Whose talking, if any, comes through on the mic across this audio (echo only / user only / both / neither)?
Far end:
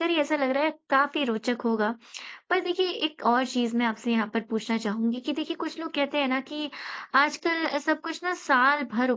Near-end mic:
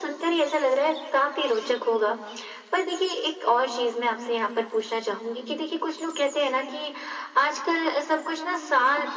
both